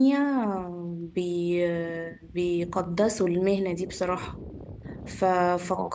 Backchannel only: Yes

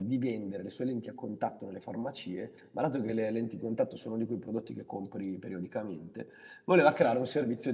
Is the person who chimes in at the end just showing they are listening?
Yes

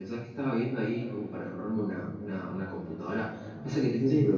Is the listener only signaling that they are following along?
Yes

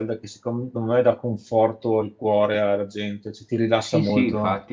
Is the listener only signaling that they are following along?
No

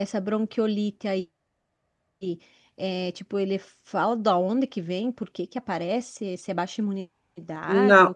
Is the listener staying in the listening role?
No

